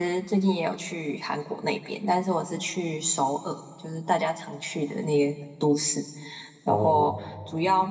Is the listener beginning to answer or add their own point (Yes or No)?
No